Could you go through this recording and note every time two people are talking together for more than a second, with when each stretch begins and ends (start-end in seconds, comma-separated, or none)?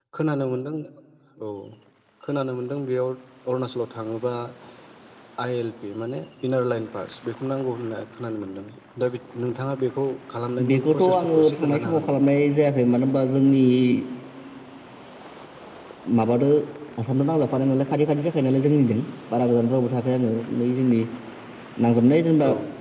10.7-12.2